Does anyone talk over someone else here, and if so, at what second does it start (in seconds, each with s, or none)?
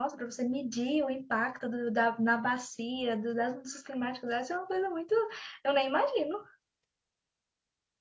none